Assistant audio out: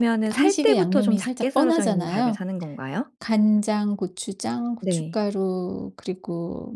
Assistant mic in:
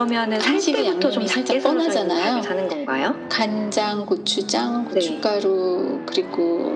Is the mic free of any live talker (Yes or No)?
Yes